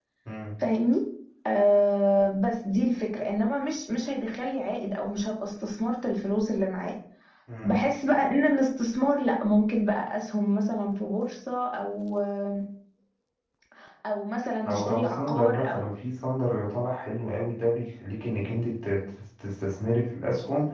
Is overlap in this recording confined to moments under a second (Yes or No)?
No